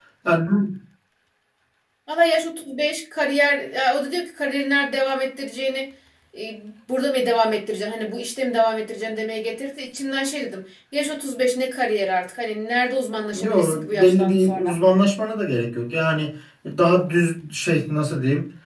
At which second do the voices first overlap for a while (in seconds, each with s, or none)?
13.3 s